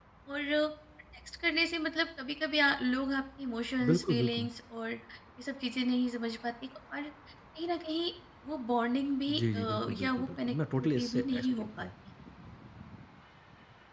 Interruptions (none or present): present